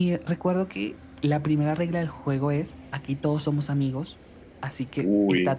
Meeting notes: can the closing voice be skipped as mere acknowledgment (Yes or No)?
Yes